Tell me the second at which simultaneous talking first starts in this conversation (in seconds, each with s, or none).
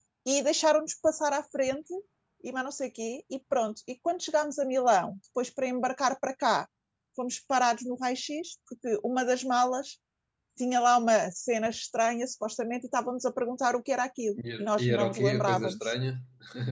14.4 s